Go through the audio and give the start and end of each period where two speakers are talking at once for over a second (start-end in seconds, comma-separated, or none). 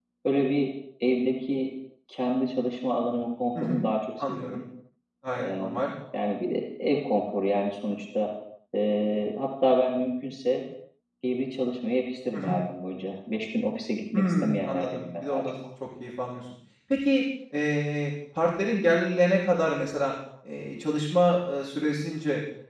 14.2-15.6